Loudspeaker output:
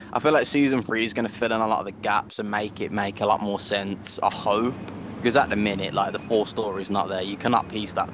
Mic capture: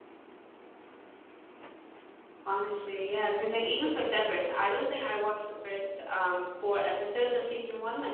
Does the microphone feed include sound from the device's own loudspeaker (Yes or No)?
No